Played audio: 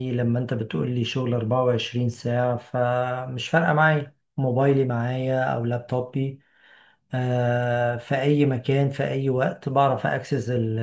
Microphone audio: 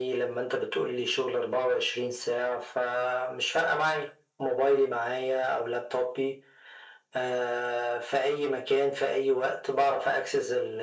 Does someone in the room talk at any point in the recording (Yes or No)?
No